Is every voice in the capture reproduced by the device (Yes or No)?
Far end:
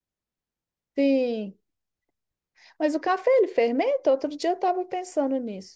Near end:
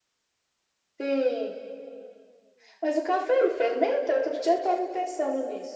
Yes